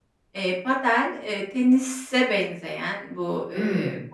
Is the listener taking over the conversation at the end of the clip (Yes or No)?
No